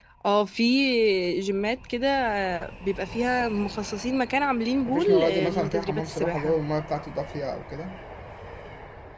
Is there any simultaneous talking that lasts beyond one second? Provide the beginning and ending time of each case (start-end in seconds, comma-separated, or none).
4.8-6.6